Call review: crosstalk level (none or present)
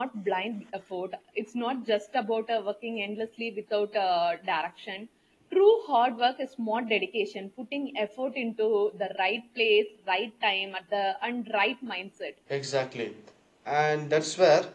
none